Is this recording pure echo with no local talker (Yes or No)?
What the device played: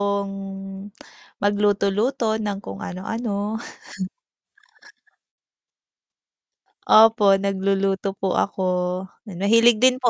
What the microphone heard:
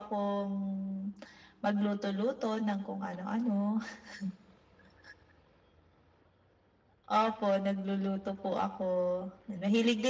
Yes